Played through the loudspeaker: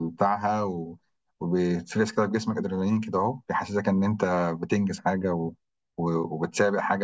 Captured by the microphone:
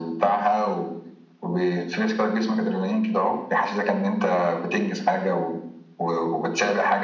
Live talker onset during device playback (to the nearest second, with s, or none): none